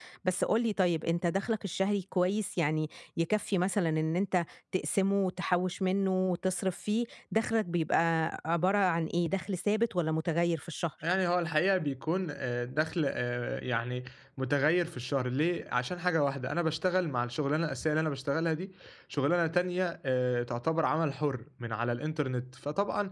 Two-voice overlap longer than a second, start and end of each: none

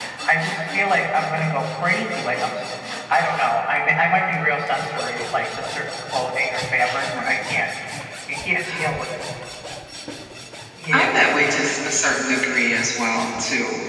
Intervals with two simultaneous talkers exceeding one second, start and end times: none

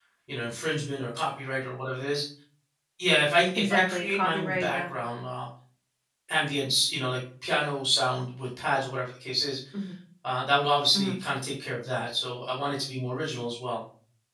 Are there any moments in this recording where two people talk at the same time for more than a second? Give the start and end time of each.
3.6-4.9

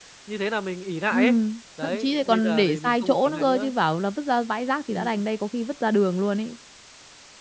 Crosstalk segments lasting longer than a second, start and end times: 1.8-3.7

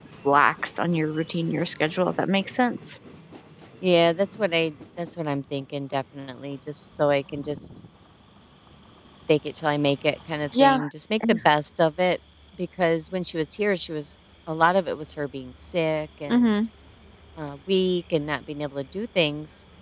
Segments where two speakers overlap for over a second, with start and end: none

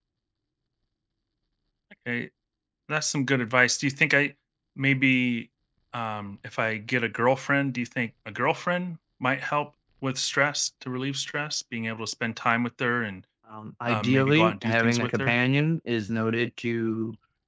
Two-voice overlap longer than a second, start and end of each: 13.9-15.4

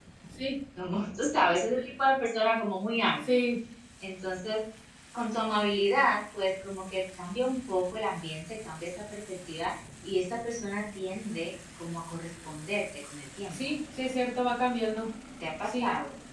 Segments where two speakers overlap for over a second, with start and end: none

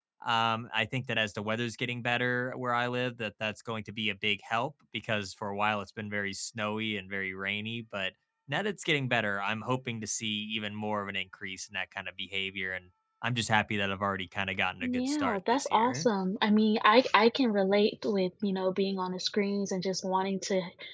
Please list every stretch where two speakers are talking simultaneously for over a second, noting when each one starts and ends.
14.8-16.1

